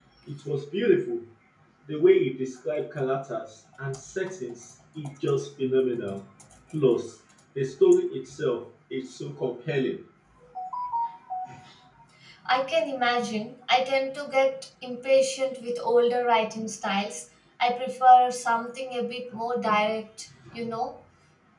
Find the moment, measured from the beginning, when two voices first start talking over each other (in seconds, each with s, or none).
none